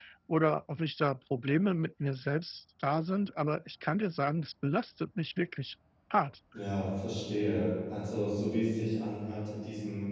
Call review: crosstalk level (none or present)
none